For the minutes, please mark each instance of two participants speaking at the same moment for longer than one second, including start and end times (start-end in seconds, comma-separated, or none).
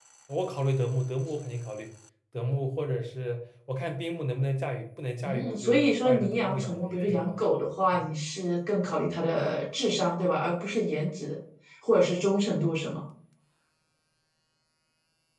5.2-7.4